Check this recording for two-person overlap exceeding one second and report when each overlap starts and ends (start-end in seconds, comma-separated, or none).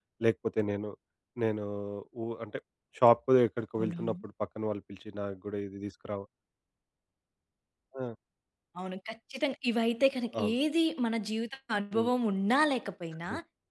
none